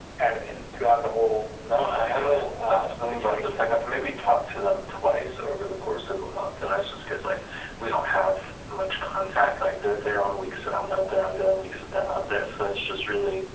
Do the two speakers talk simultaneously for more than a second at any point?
Yes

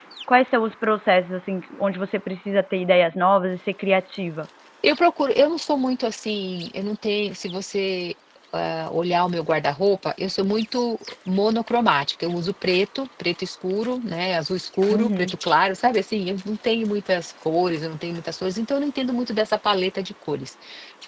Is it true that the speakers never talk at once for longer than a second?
Yes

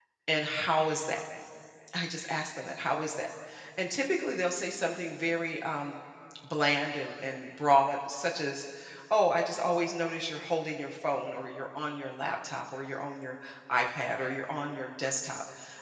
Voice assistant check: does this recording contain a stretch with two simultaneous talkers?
No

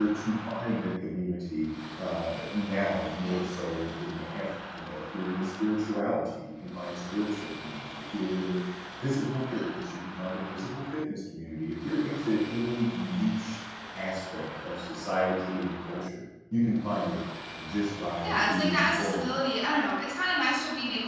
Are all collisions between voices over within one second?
No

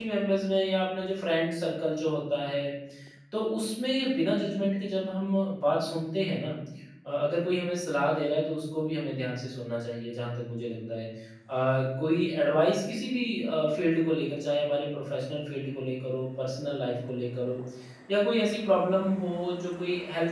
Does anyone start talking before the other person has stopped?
No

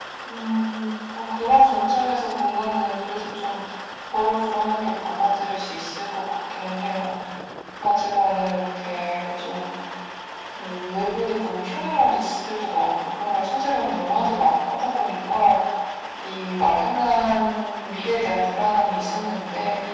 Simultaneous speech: No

